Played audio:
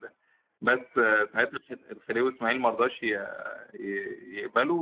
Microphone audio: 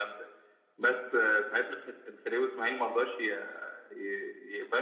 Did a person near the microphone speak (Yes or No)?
No